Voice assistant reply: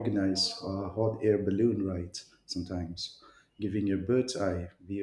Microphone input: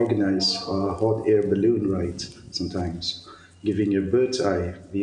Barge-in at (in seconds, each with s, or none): none